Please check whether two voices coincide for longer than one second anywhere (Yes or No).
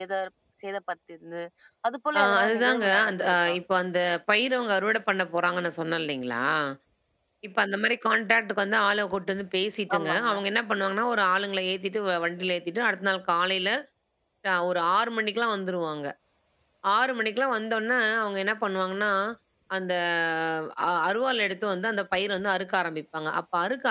Yes